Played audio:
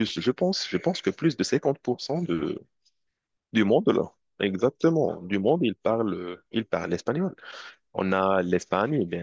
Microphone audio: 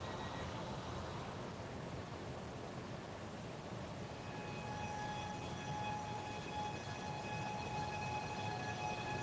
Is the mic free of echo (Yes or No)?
Yes